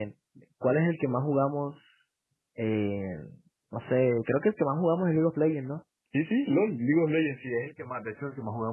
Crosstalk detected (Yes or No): No